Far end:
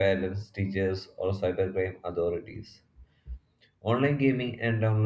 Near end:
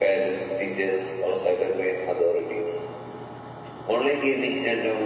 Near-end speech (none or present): none